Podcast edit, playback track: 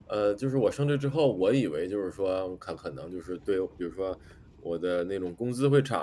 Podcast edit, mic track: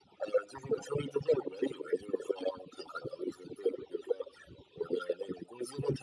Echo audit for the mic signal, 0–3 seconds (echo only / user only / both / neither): echo only